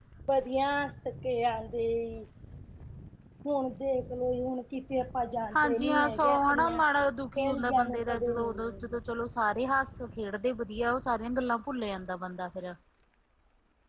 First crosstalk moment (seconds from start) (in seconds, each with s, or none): 5.5 s